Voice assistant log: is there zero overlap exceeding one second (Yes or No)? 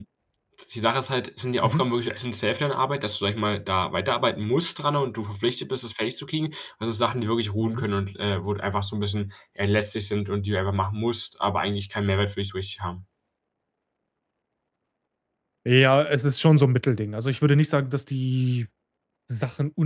Yes